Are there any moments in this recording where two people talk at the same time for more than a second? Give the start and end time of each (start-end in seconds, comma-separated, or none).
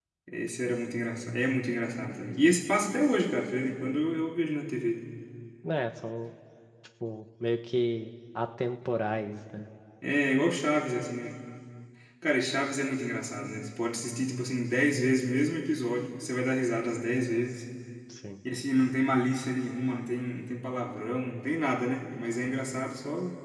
none